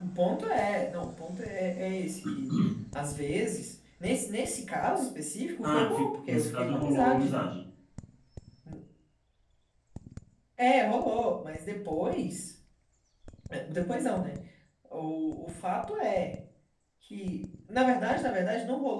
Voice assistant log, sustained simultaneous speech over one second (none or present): present